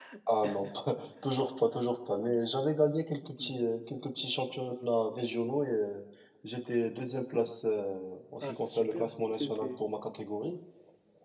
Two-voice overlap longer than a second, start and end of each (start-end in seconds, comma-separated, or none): 8.4-9.8